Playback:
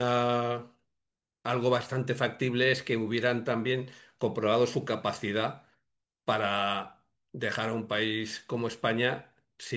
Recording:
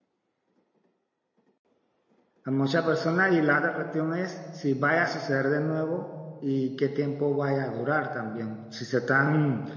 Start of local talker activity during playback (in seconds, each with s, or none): 2.4 s